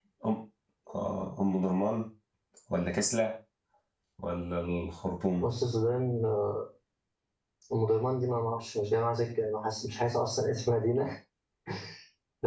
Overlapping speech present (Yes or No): No